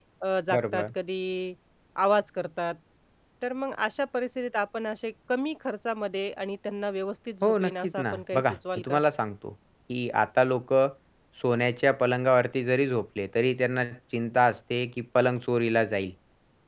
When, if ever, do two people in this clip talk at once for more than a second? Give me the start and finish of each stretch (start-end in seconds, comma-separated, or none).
7.4-9.0